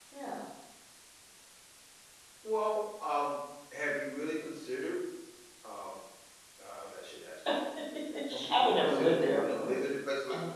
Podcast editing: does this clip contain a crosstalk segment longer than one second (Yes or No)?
Yes